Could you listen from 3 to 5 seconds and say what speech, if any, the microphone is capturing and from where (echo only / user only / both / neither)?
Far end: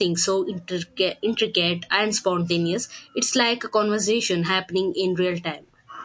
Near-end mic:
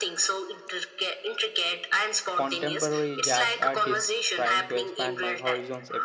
both